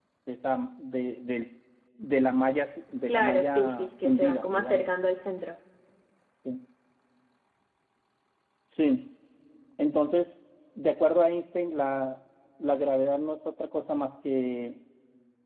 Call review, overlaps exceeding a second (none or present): present